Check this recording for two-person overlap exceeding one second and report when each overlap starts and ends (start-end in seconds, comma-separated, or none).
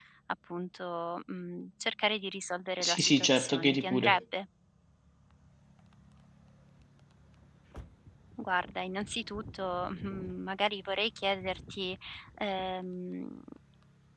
2.8-4.2